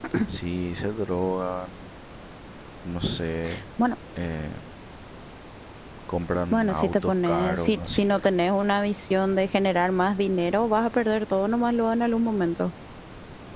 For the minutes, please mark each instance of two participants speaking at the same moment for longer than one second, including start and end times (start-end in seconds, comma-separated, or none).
6.5-8.3